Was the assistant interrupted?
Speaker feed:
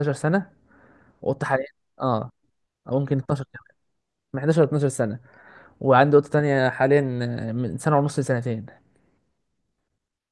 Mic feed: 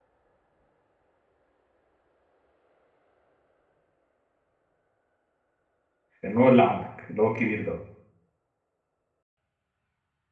Yes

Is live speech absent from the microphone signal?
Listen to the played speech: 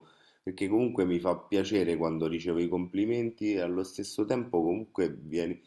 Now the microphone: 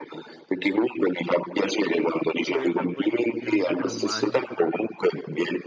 No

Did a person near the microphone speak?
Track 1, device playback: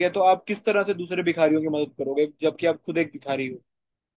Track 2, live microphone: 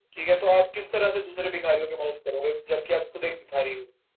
No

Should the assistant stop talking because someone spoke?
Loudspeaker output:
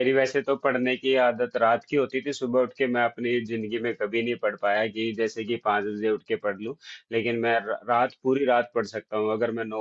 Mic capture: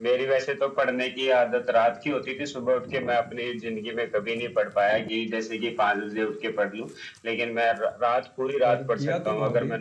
Yes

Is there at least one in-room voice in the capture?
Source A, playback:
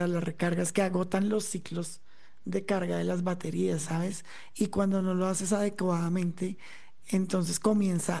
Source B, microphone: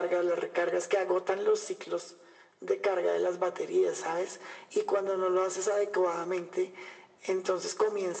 No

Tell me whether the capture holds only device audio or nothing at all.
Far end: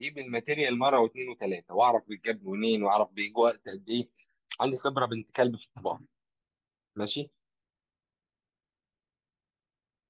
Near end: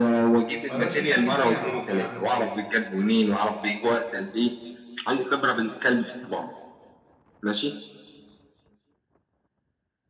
No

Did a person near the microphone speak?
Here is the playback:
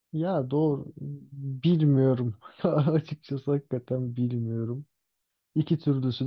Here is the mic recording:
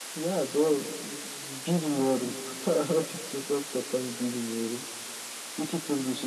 No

